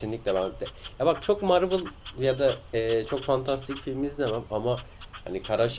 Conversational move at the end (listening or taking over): listening